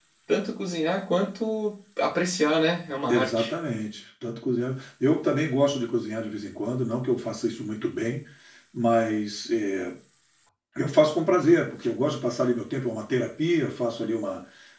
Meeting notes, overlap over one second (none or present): none